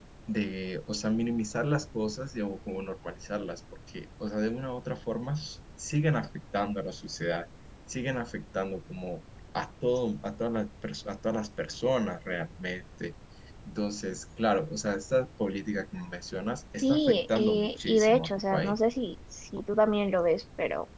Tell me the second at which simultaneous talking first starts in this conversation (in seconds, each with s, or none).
16.8 s